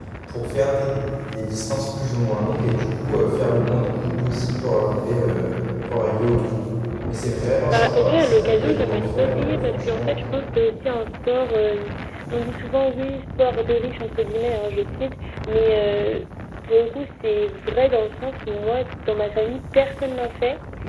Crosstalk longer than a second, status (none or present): present